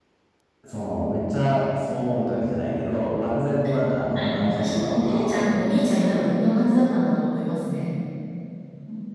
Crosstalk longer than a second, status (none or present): present